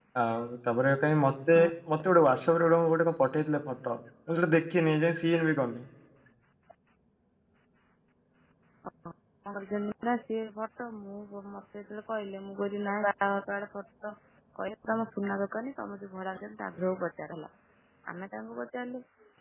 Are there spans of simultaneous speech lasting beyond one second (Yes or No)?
No